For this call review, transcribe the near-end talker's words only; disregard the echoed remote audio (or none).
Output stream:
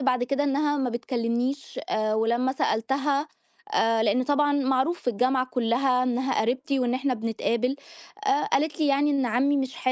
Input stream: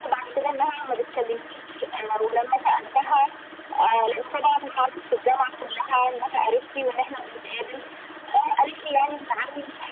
none